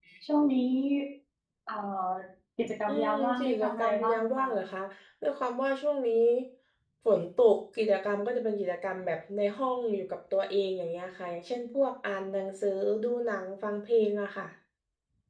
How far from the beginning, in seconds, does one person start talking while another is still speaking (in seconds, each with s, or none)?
2.9 s